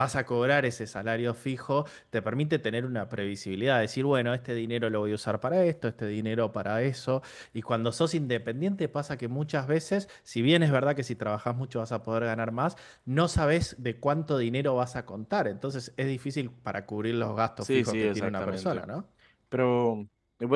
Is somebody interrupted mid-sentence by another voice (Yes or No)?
Yes